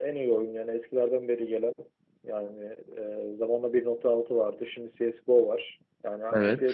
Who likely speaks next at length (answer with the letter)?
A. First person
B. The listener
A